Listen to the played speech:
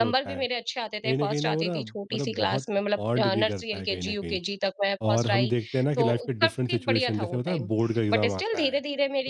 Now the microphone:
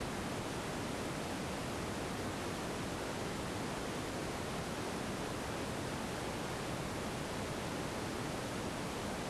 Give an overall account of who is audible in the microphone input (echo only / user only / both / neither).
neither